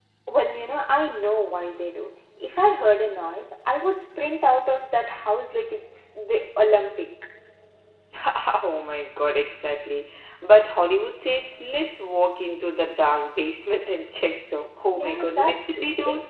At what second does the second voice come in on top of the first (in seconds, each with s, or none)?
14.9 s